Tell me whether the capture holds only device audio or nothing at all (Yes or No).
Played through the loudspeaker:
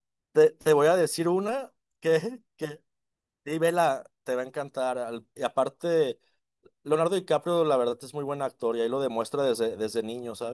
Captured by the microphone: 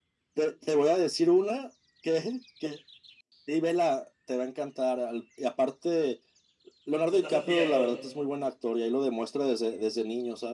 No